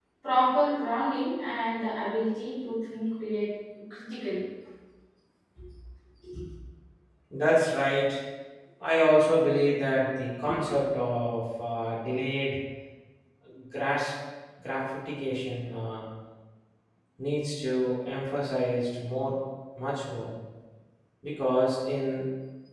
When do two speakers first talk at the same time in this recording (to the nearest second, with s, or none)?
none